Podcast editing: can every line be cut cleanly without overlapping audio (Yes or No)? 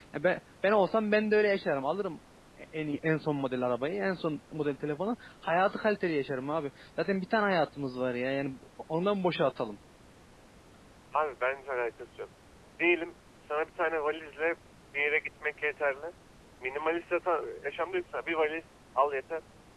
Yes